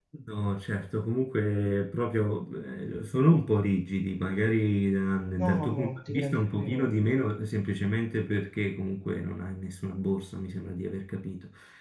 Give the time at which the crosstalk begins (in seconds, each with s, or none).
5.4 s